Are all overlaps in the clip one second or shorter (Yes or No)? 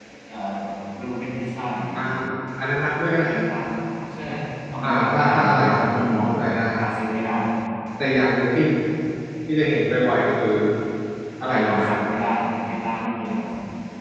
No